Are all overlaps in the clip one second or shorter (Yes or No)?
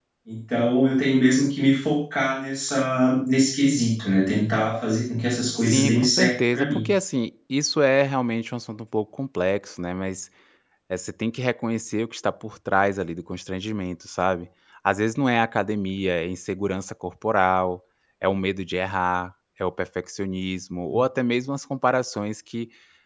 No